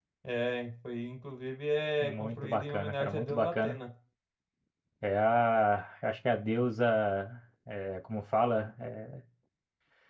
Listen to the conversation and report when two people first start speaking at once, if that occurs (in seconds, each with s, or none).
2.0 s